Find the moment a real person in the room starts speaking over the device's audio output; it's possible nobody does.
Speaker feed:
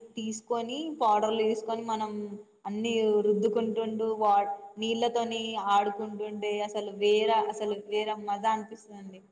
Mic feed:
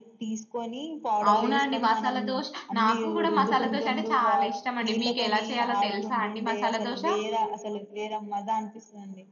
1.3 s

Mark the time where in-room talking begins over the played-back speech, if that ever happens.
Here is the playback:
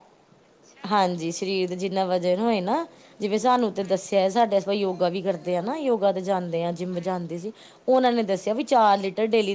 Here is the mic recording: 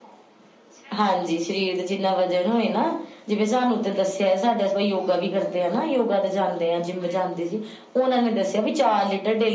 none

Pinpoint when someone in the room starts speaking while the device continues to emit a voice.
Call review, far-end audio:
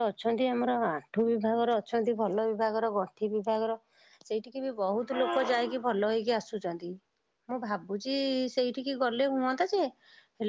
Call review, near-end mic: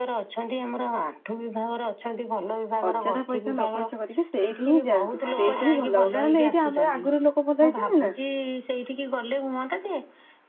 2.9 s

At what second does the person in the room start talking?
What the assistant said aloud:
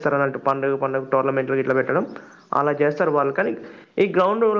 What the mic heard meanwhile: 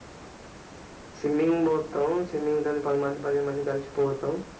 1.2 s

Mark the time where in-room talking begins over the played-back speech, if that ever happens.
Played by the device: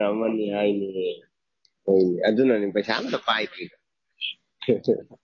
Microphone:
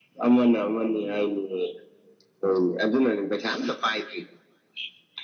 none

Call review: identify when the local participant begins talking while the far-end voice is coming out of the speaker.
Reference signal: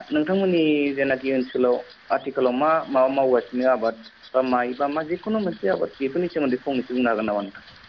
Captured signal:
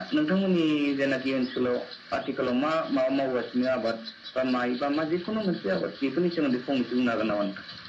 none

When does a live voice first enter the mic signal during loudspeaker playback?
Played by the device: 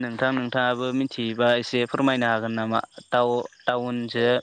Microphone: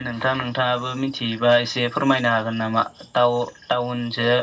none

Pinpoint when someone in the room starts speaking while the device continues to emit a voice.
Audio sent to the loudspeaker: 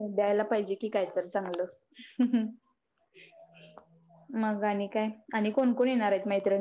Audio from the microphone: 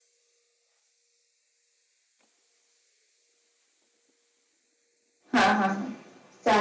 5.3 s

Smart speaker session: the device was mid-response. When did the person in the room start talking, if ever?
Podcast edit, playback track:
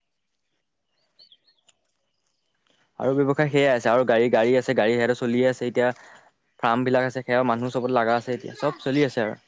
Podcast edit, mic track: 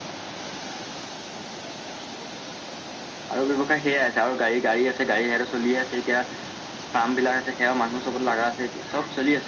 none

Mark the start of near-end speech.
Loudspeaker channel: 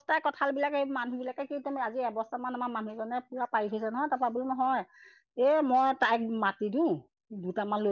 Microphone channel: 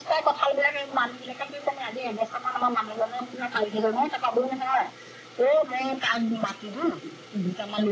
none

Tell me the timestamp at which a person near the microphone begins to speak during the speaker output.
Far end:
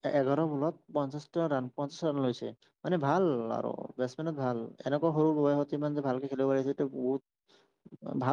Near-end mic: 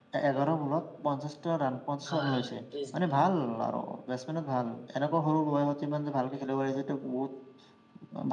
2.1 s

